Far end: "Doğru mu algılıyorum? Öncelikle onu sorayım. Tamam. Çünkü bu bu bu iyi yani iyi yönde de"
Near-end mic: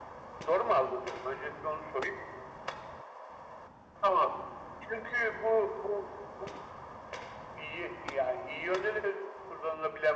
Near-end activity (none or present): none